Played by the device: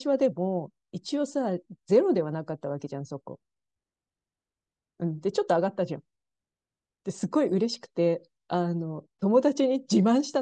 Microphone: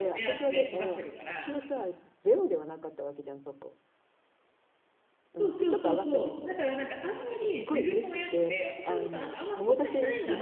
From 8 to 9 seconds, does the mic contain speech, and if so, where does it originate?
both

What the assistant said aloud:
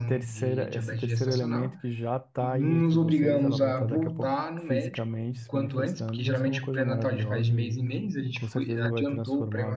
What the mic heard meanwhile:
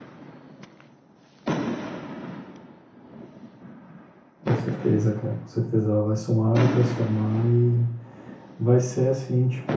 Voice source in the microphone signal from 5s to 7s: user only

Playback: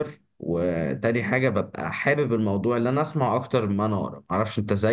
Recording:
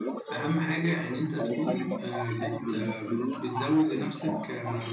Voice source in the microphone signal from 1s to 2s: both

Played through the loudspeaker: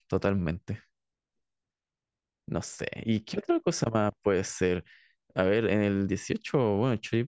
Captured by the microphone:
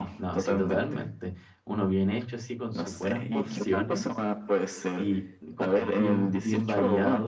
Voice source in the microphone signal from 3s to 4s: both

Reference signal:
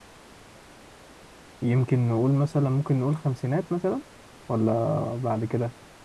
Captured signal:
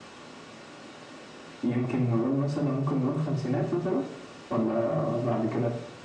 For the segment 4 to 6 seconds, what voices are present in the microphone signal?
echo only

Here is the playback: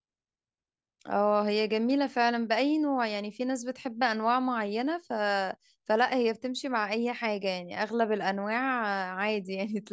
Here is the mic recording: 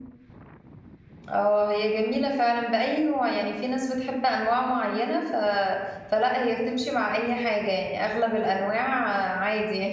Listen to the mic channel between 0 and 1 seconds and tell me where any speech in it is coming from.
neither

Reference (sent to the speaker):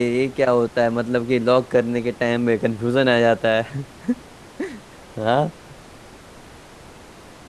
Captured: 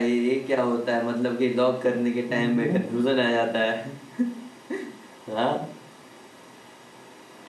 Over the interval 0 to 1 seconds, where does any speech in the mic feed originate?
echo only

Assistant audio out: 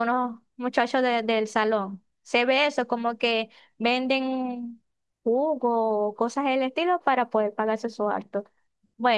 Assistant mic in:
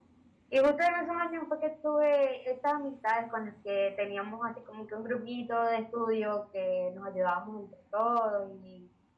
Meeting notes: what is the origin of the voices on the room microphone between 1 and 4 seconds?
user only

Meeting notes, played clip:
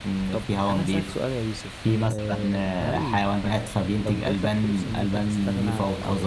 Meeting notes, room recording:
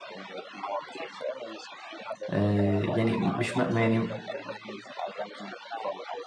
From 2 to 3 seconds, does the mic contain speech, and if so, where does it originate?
both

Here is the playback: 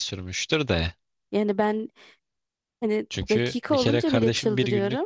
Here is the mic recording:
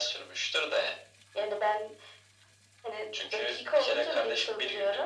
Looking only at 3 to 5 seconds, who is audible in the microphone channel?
echo only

